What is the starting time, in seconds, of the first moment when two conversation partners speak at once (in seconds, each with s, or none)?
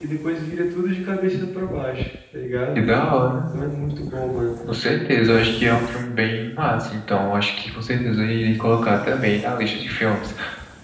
none